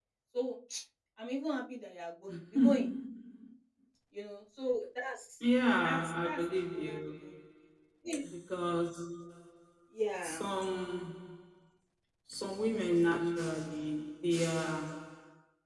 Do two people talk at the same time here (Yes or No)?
Yes